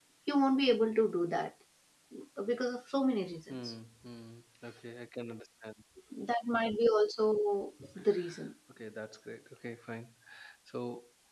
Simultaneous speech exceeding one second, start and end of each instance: none

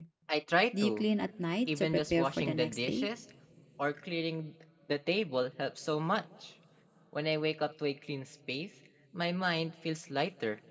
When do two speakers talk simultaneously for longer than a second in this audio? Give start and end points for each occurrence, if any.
1.8-3.1

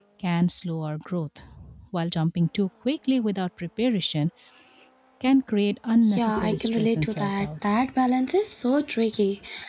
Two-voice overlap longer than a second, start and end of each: 6.2-7.5

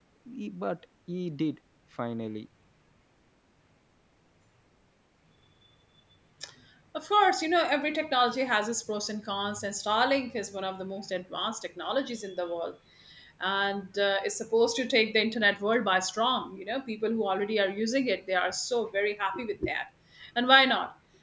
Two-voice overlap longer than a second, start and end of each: none

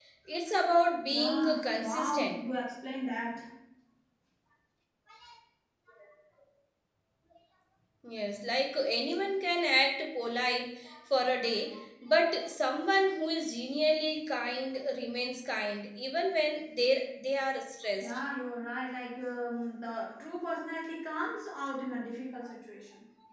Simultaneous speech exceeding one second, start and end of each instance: 1.1-2.4

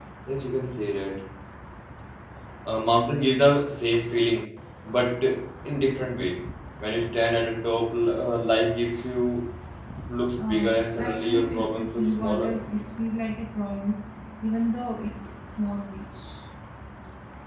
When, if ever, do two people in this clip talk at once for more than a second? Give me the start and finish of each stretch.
10.4-12.5

